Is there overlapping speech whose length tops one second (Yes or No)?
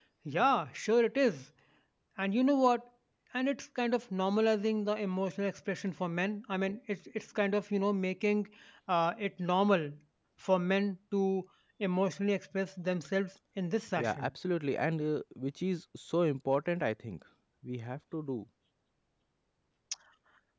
No